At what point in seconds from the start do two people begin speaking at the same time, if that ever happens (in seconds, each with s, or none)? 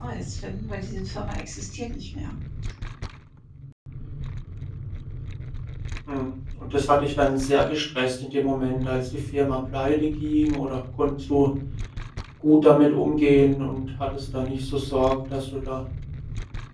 none